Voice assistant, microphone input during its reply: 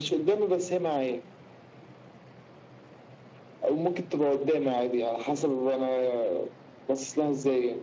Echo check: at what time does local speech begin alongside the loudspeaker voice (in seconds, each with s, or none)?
none